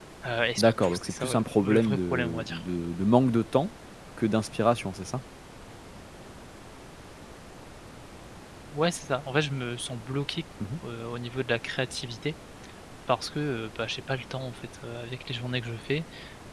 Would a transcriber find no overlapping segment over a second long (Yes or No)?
No